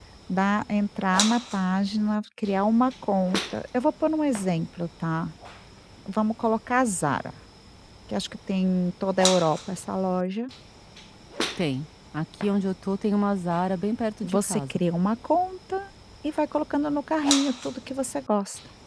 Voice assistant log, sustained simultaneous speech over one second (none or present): none